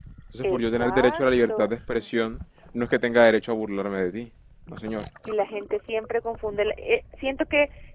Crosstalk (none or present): present